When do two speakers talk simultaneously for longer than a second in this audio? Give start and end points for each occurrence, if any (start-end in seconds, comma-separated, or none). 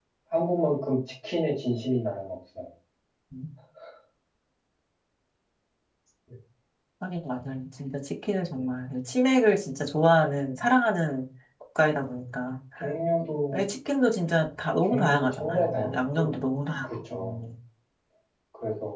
14.8-16.3